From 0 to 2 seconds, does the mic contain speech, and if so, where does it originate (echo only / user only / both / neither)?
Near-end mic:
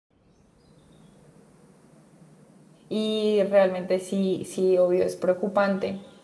neither